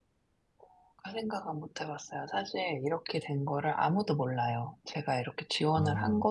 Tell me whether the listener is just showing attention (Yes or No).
Yes